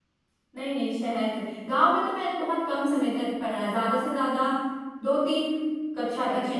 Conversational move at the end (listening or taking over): listening